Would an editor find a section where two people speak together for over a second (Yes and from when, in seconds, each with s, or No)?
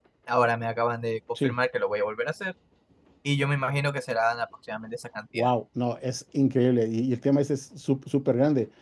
No